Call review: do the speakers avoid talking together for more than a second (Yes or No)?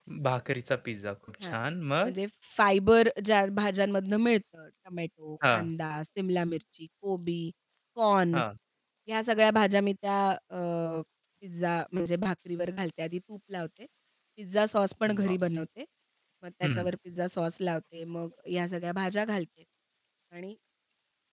Yes